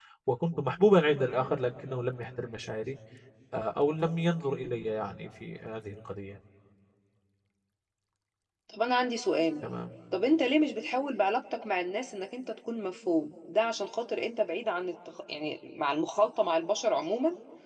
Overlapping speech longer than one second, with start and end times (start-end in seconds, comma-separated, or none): none